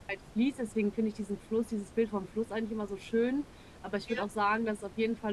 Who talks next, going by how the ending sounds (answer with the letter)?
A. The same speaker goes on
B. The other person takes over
A